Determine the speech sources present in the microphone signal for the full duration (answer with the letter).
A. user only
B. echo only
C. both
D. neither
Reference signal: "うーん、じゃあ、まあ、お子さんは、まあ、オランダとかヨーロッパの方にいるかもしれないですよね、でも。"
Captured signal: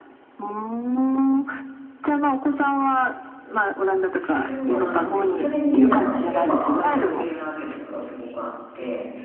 C